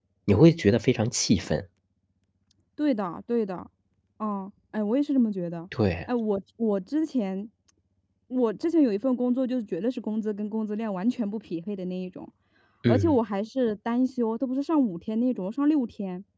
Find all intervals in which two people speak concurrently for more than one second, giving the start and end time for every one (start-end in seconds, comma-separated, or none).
none